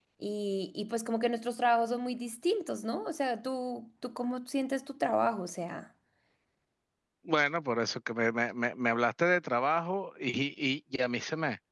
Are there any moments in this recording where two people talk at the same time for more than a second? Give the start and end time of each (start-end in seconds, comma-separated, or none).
none